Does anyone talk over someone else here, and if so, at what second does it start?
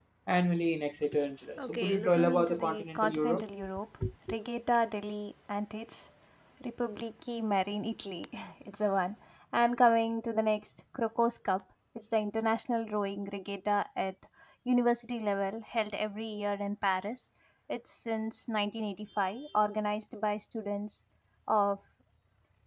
1.6 s

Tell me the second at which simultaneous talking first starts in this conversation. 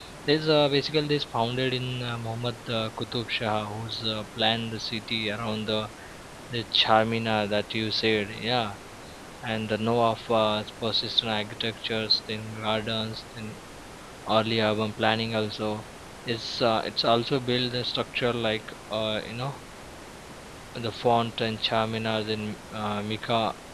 none

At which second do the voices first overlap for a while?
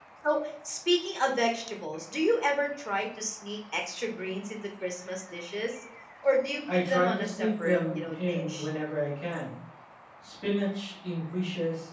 6.7 s

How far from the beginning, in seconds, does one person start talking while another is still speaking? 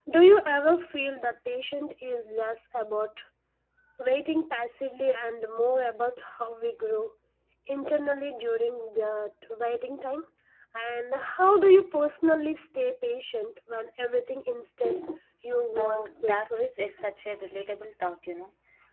15.8 s

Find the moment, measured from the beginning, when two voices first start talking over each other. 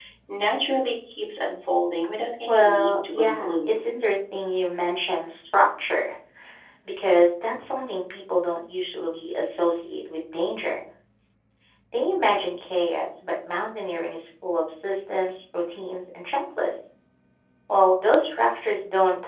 2.5 s

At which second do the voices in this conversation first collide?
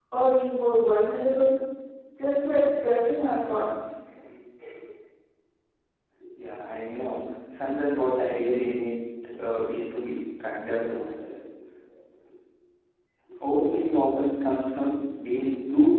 none

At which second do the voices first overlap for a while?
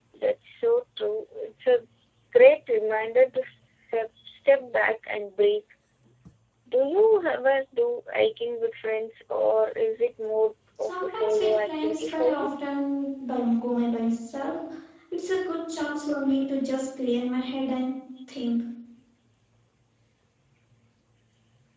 10.8 s

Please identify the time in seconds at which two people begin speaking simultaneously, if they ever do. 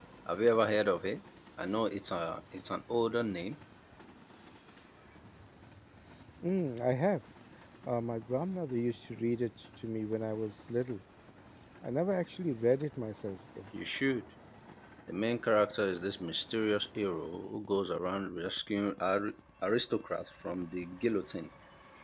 none

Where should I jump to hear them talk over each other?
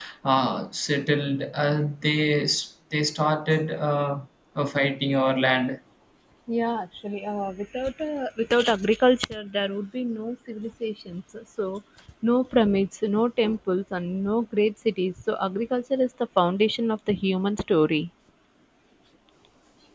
none

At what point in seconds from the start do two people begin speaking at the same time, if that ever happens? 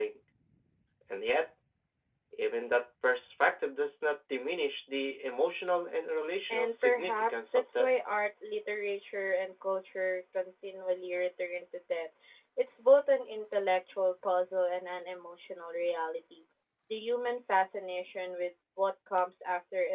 6.5 s

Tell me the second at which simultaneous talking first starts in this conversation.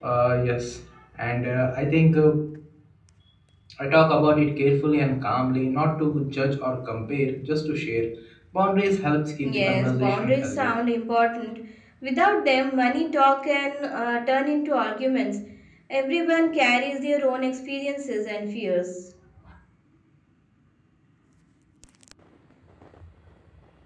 9.4 s

